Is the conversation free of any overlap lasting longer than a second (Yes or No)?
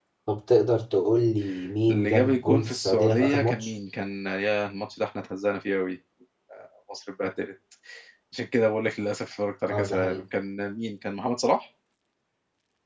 No